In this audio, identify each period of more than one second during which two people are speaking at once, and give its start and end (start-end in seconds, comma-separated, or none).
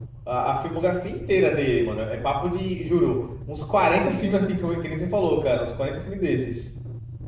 none